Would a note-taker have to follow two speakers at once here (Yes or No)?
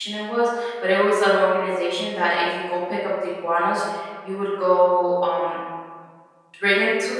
No